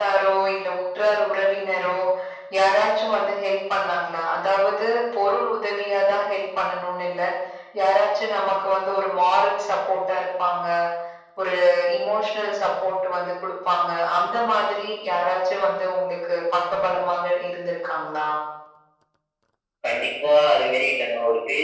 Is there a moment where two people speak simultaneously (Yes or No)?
No